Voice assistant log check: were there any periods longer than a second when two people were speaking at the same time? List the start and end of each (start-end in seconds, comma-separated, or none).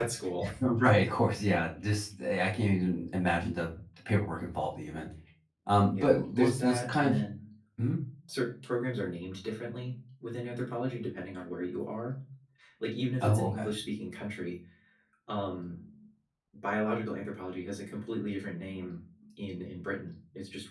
5.9-7.2